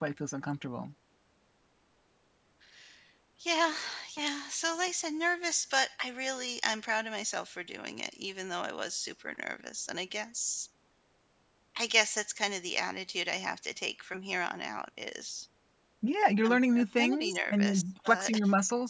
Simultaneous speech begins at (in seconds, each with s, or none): 16.5 s